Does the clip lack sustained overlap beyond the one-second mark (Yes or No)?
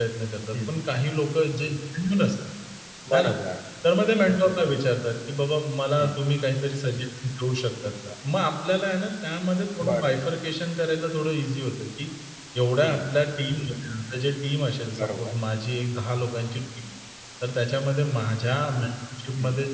Yes